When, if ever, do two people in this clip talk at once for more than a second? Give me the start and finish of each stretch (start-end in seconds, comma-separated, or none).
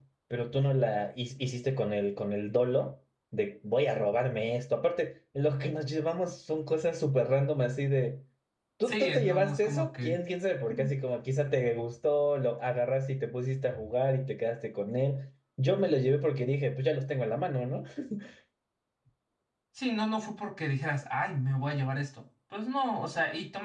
8.8-10.2